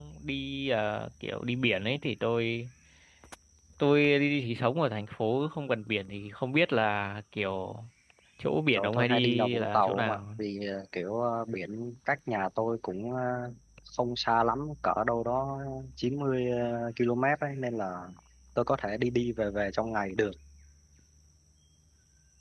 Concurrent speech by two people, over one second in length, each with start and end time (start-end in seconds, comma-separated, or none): 8.7-10.2